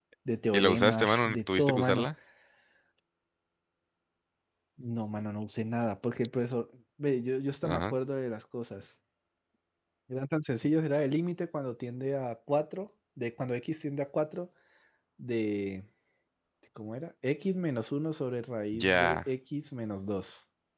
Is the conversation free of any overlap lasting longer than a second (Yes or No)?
No